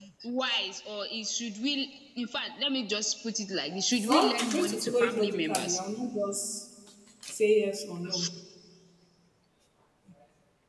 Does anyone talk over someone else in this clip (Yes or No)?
Yes